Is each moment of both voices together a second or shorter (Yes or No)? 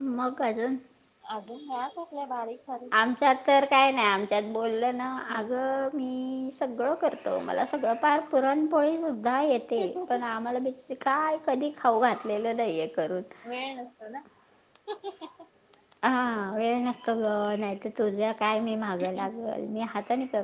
Yes